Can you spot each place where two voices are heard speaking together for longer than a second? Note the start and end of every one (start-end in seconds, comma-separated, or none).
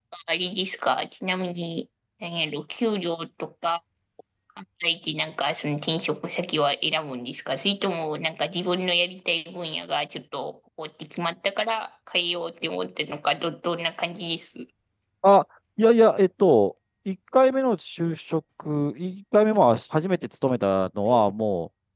none